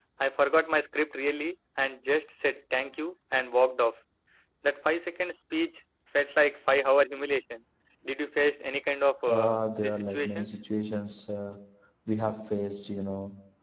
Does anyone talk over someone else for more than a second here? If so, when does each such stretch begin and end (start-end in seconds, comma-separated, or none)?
9.3-10.5